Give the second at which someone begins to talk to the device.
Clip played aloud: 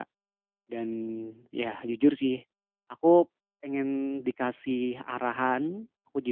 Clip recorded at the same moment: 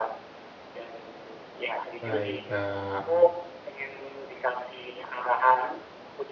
2.0 s

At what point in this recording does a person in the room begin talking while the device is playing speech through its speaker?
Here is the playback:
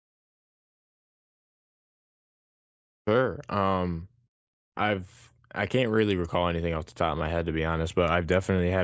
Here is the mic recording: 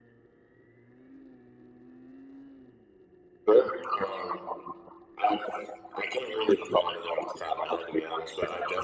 none

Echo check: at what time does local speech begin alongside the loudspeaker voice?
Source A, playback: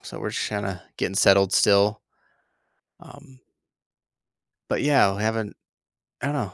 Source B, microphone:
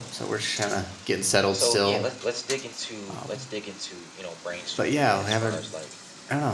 1.5 s

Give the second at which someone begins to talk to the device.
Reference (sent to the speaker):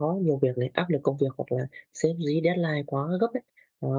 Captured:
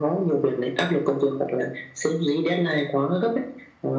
none

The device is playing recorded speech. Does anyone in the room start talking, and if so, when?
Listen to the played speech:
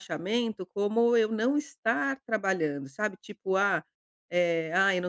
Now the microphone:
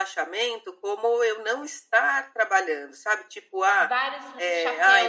3.7 s

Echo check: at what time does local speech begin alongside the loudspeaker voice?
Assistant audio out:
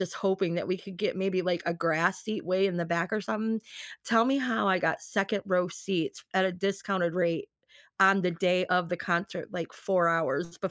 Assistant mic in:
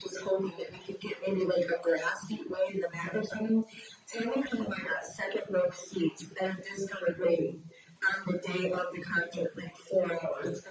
none

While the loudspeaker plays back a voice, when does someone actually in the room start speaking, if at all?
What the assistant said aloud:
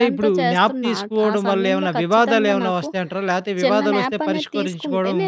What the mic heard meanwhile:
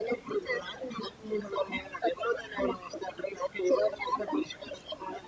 none

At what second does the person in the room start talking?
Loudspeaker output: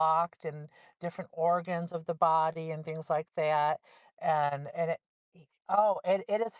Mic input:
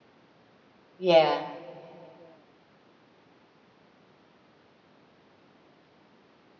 1.0 s

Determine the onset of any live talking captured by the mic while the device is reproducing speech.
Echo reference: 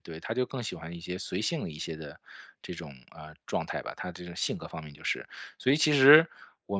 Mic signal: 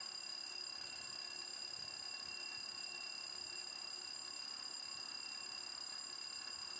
none

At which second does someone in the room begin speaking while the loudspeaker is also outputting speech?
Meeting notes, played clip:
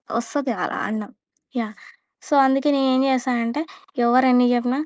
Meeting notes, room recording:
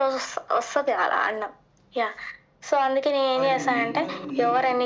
3.4 s

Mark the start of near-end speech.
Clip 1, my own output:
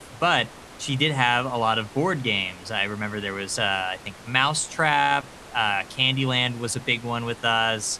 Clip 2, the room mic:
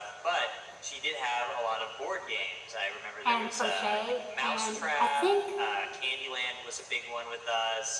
3.2 s

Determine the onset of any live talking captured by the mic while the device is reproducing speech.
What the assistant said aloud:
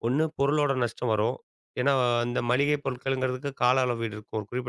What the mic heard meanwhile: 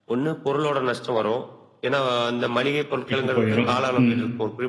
3.1 s

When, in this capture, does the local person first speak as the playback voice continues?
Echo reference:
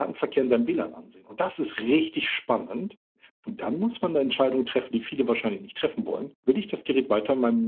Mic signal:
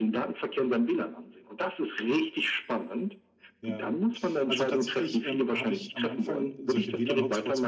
3.6 s

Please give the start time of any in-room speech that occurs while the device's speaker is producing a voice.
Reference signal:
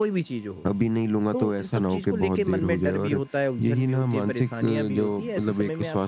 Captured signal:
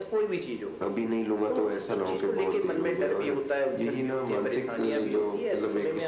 none

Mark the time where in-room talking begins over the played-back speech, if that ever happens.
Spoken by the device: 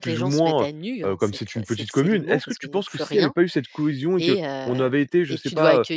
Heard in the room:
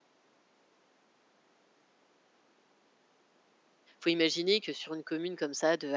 4.0 s

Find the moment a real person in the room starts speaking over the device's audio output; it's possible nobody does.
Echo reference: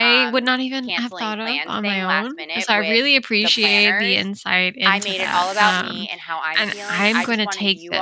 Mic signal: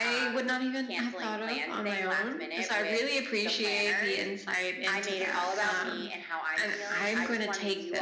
none

